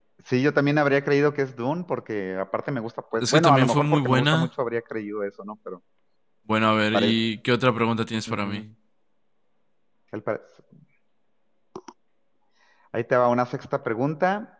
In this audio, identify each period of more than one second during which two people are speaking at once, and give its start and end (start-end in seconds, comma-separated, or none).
3.2-4.5